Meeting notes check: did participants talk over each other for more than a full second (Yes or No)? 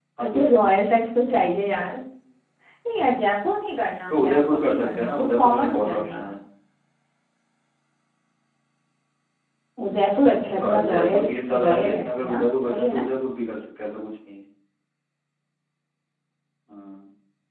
Yes